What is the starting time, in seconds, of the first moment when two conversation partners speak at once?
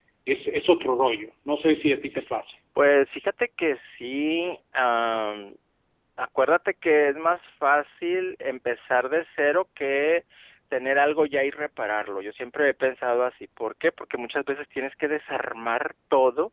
none

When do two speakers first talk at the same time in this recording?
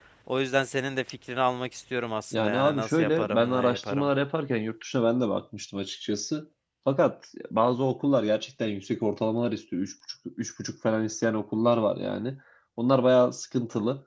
2 s

